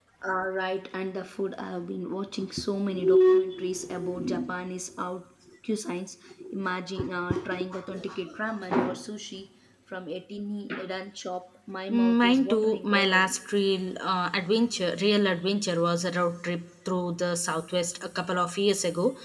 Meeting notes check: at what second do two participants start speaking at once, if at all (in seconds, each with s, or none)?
11.9 s